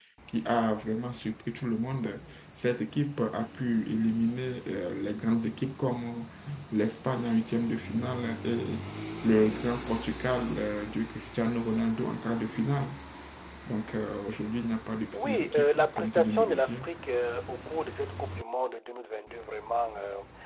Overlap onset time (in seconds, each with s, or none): 15.1 s